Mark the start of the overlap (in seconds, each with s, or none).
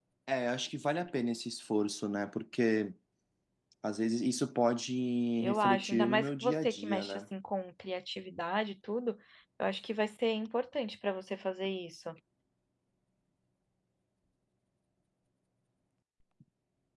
5.4 s